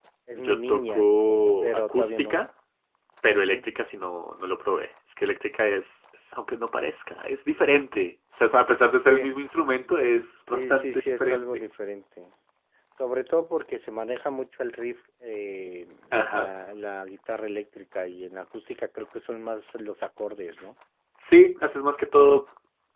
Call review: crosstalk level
present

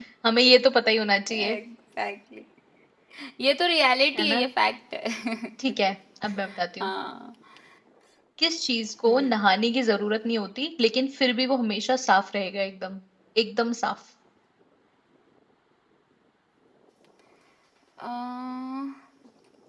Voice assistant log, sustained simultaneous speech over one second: none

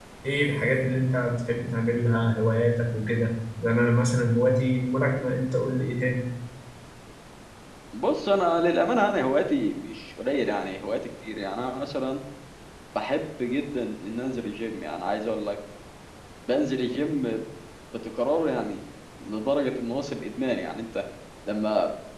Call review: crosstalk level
none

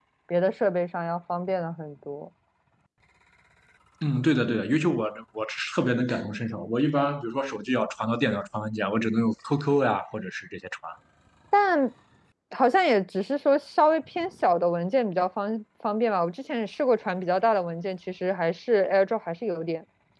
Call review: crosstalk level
none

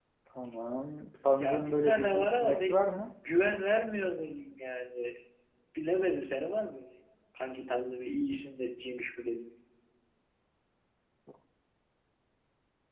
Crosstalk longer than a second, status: present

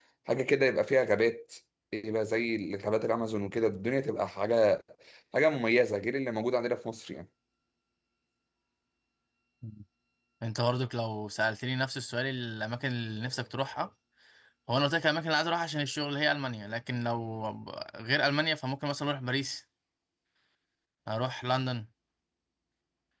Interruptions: none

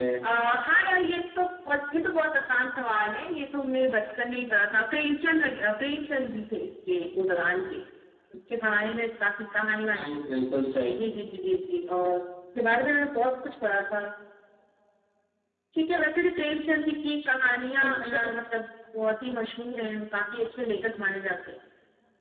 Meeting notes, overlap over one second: none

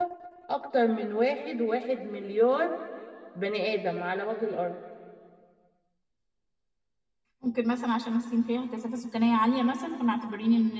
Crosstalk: none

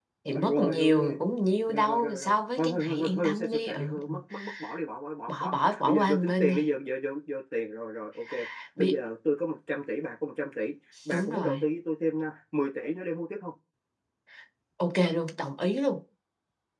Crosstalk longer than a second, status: present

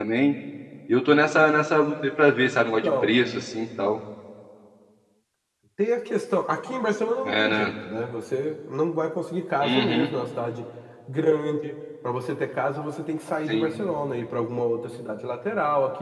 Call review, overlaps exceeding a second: none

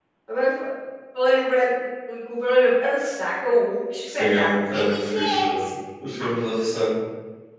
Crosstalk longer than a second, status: present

